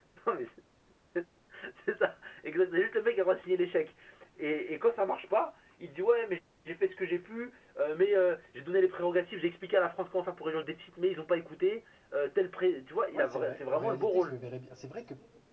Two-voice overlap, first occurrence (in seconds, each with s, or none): 13.1 s